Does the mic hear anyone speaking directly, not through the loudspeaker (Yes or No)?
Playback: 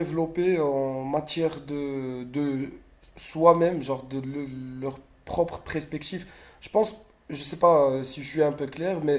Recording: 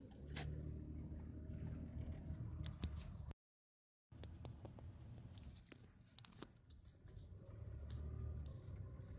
No